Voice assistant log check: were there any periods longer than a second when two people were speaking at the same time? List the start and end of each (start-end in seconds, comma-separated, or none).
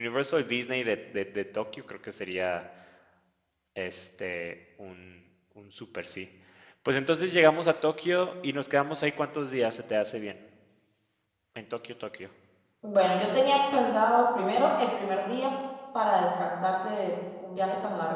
none